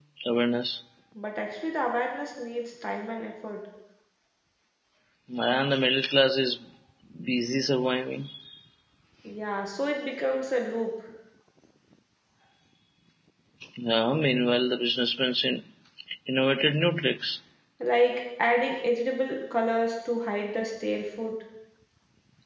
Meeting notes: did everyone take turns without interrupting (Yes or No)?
Yes